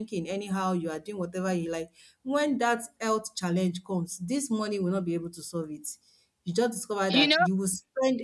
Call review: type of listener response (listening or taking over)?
listening